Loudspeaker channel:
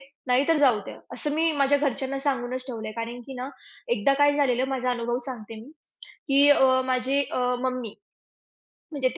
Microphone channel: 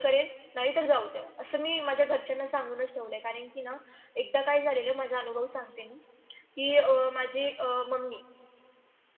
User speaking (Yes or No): No